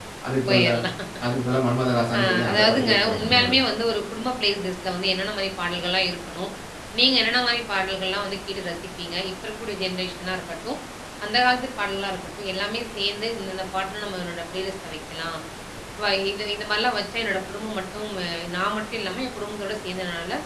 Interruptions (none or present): present